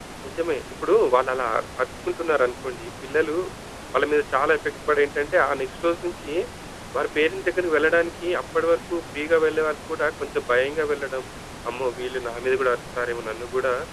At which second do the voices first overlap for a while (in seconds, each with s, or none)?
none